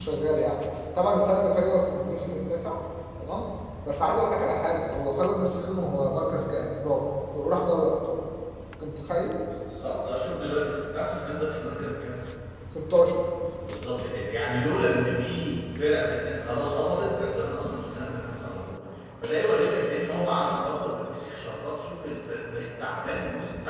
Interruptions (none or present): none